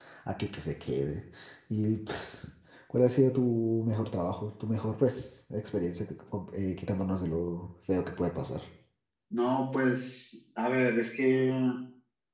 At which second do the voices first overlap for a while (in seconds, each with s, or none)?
none